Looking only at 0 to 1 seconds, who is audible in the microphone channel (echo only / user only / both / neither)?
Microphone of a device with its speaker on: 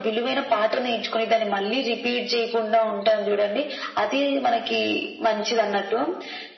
echo only